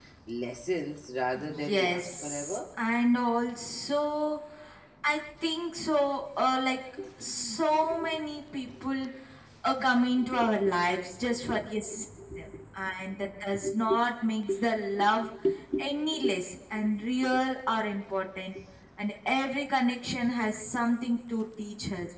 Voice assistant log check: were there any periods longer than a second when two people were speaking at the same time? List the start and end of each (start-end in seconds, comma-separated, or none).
1.4-2.6